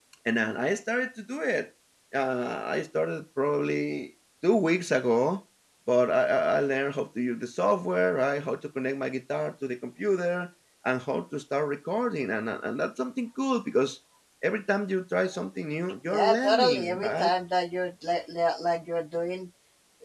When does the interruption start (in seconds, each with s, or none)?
16.1 s